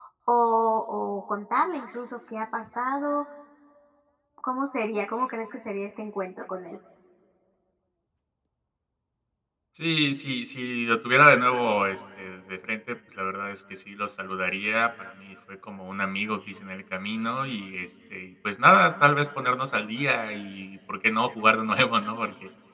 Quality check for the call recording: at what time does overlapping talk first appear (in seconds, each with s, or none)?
none